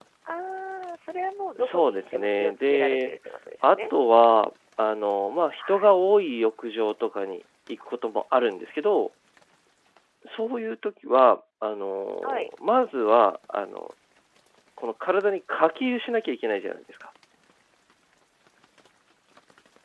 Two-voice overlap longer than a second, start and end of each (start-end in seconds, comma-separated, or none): 1.6-3.1